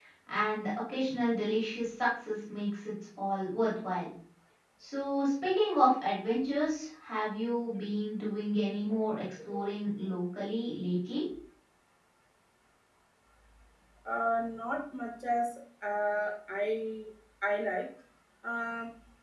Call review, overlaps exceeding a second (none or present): none